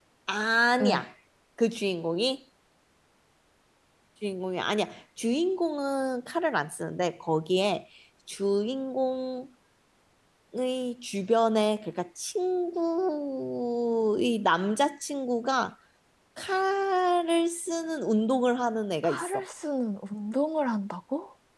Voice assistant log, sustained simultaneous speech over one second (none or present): none